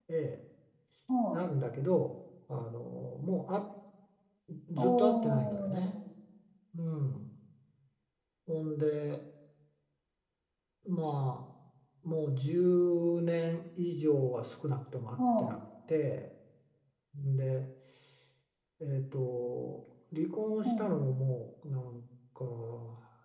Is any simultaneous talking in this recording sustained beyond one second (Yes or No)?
Yes